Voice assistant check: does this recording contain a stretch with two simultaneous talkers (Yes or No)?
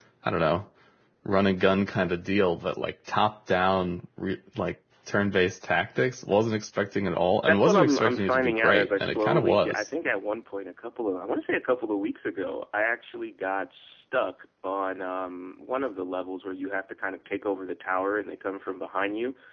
Yes